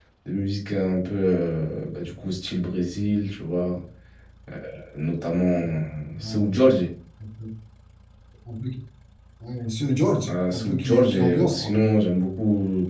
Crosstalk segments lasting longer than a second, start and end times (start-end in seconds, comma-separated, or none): 10.3-11.8